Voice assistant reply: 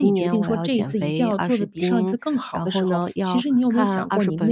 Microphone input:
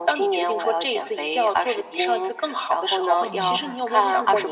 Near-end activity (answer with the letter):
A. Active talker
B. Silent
A